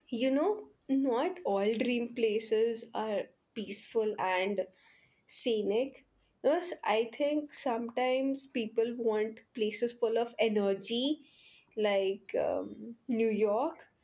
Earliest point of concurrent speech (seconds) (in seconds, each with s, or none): none